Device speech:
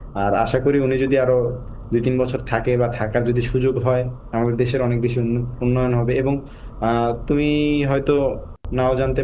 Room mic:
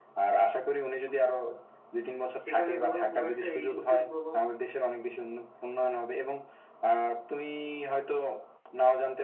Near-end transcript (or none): সেখানে ধরো খুব একটা এই যুদ্ধের প্রভাব